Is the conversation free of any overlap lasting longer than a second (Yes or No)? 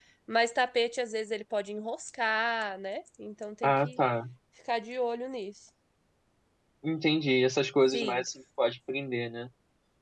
Yes